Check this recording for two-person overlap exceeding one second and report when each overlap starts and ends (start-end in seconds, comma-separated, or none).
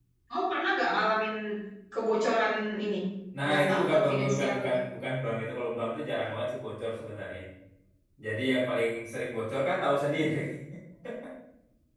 3.5-4.7